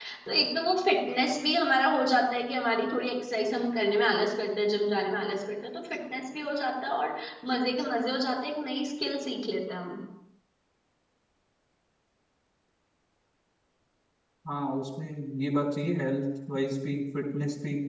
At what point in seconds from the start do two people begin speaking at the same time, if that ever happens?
none

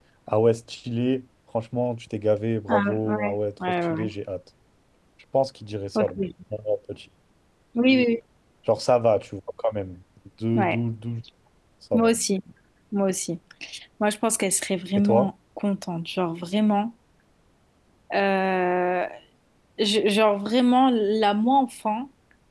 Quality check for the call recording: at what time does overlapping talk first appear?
2.7 s

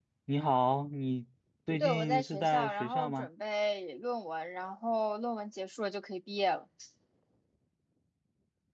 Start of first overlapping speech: 1.8 s

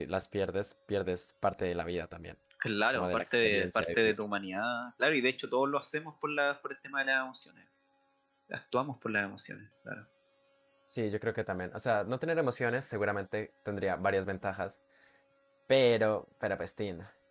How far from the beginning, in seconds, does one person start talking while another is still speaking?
2.9 s

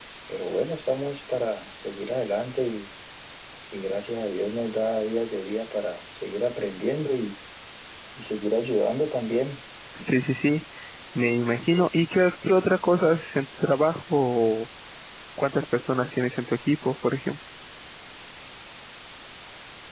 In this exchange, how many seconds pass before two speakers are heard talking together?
none

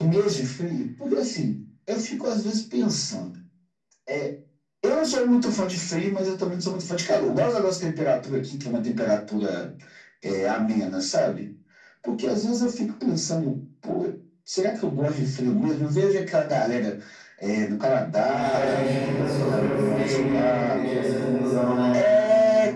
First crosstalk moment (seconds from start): 18.2 s

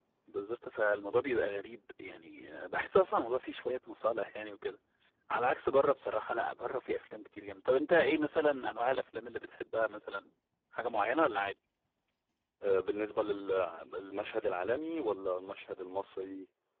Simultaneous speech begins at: none

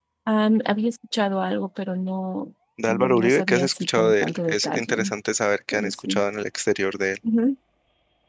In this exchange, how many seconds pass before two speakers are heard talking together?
2.9 s

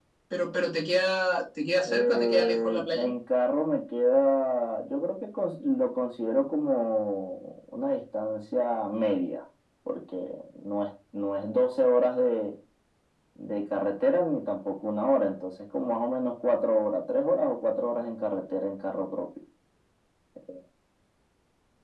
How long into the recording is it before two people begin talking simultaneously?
1.9 s

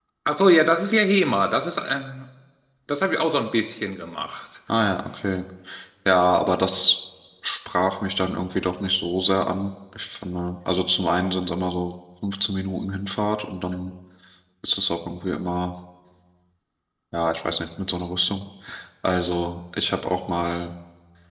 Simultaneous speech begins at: none

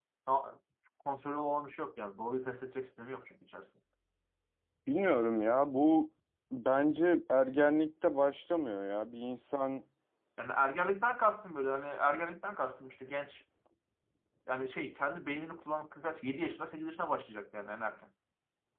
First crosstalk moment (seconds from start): none

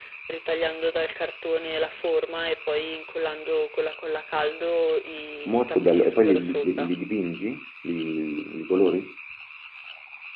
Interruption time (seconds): 5.5 s

